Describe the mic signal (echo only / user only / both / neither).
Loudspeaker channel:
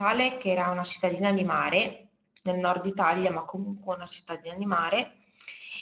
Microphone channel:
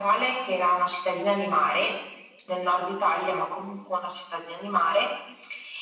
echo only